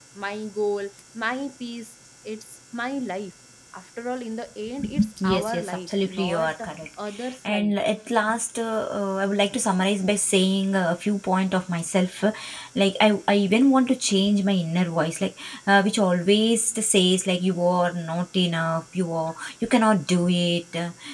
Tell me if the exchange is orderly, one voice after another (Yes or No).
No